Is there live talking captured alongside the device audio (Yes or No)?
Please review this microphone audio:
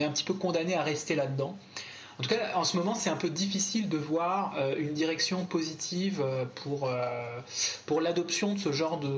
No